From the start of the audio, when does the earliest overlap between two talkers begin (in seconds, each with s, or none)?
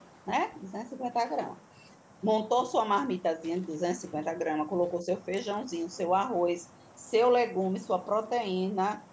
none